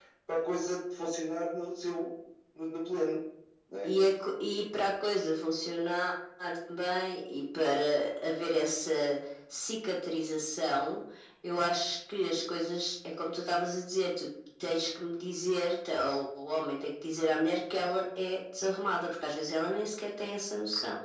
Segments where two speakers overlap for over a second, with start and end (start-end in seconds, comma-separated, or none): none